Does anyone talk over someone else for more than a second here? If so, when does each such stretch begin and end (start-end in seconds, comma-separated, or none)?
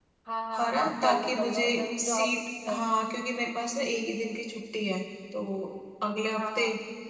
0.5-2.8